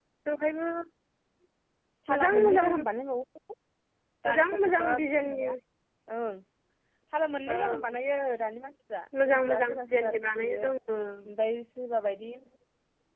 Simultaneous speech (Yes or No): Yes